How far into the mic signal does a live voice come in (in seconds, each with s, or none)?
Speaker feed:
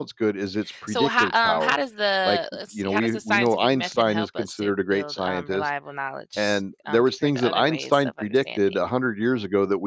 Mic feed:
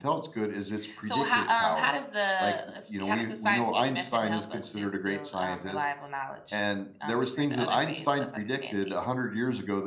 none